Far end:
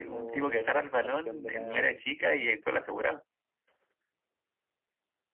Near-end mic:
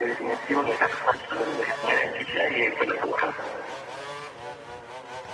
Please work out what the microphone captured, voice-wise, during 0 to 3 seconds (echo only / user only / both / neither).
echo only